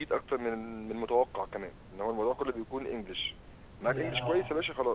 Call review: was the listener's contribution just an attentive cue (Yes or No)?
Yes